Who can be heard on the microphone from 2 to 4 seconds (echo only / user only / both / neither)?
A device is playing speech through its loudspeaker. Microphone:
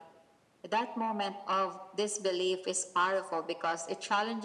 echo only